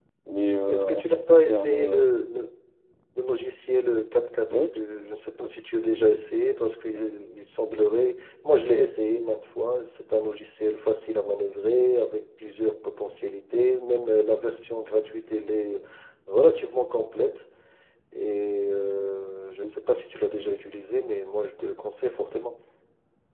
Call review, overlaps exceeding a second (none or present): present